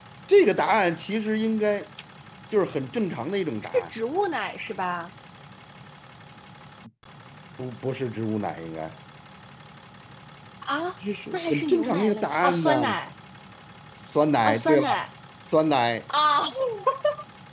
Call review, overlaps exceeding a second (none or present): present